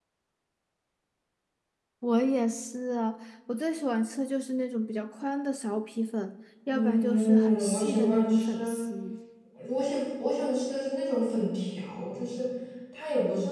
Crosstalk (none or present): present